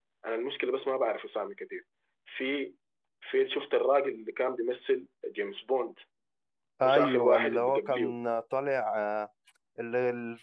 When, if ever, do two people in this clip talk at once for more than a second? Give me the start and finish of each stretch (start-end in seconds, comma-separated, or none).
6.8-8.2